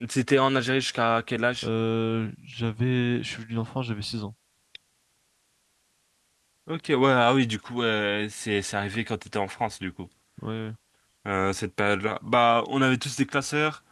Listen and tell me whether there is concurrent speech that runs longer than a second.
No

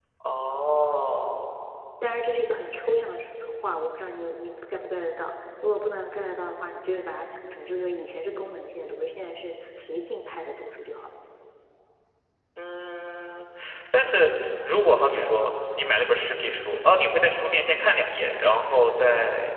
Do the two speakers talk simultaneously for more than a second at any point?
No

